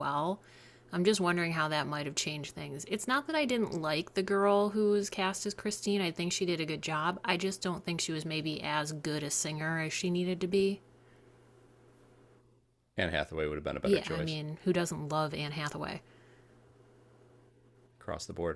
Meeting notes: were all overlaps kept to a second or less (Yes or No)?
Yes